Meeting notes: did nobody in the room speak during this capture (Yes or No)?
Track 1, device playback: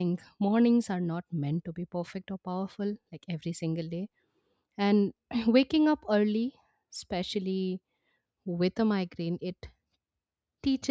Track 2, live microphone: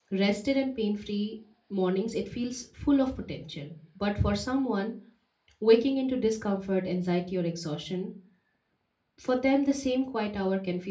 No